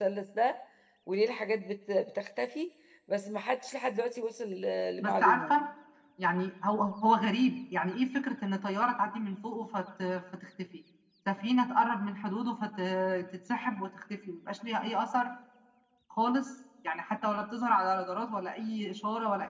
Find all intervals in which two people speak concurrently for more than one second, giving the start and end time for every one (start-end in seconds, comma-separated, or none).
none